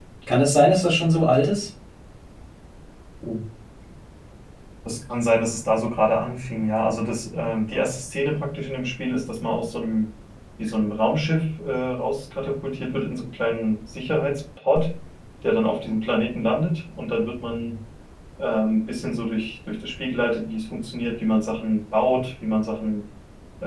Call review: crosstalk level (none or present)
none